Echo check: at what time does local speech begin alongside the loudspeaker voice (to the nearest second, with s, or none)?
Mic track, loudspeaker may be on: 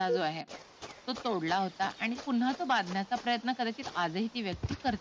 none